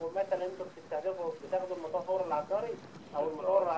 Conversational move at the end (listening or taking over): listening